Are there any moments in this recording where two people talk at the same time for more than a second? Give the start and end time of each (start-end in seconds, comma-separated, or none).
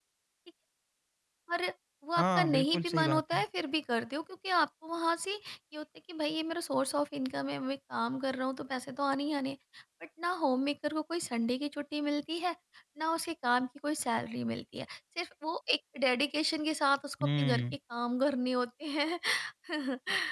2.2-3.4